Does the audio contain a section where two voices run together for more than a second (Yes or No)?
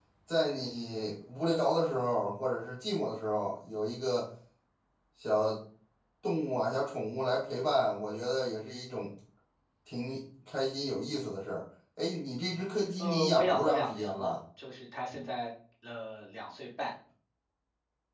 Yes